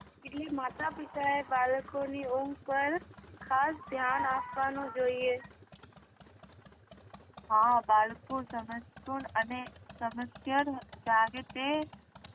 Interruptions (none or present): none